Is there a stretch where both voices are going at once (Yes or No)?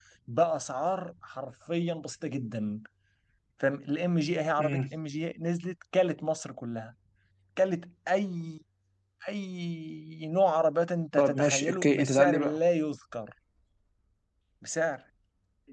Yes